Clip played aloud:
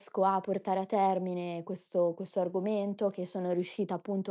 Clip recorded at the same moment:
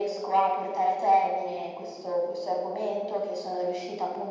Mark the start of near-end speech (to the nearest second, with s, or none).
none